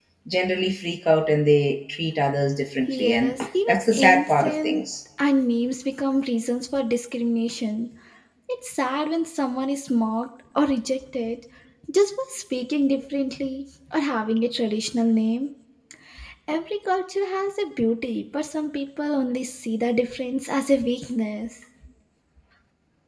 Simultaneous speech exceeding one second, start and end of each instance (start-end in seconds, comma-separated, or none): 2.9-4.8